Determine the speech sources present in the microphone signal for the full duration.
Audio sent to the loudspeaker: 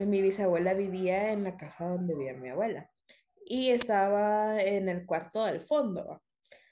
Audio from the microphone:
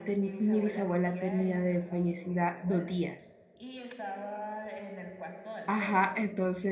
both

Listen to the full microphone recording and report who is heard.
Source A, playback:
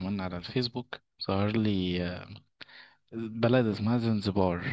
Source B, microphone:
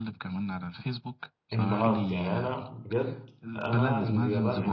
both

